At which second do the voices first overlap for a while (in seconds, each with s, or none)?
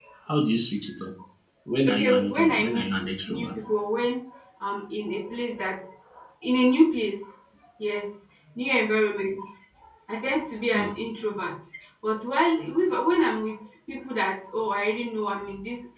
1.9 s